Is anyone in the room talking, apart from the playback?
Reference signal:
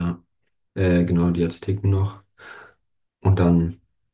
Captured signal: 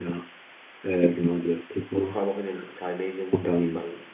Yes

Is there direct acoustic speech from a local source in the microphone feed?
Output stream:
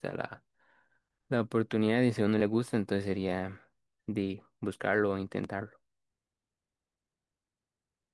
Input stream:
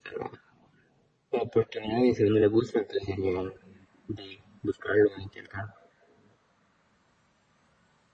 No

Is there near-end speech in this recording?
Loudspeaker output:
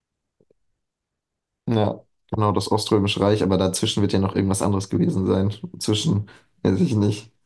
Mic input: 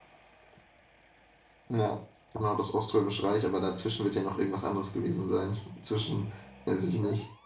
No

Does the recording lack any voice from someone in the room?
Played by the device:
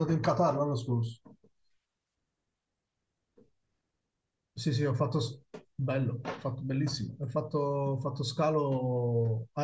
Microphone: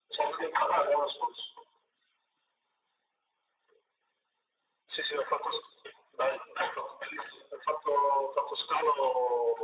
Yes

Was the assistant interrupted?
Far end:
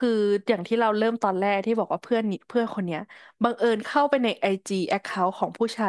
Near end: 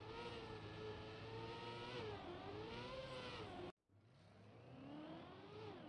No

